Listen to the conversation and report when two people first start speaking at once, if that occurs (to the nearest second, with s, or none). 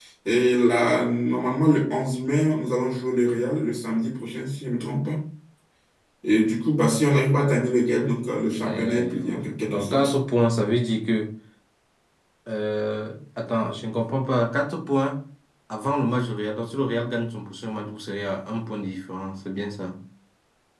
9 s